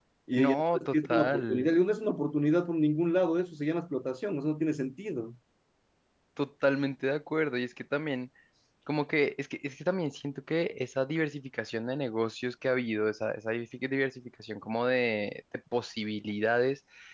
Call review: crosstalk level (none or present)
present